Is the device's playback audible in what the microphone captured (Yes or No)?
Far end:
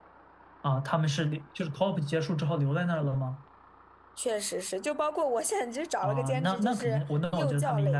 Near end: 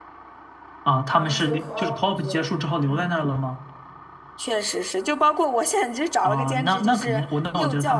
Yes